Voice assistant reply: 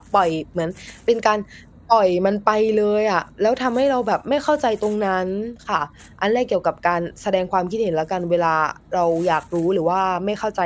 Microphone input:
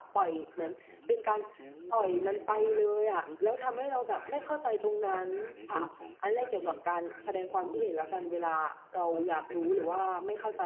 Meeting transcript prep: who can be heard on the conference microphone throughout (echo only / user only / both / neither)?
both